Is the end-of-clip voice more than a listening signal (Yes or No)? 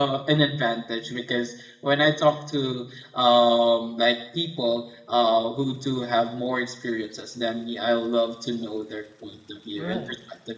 No